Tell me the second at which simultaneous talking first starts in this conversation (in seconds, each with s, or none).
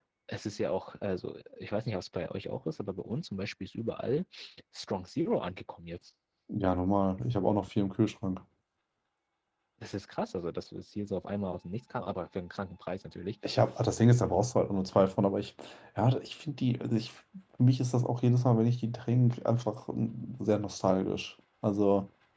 none